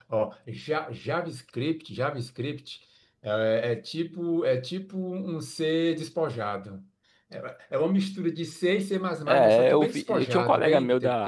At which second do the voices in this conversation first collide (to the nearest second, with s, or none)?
9 s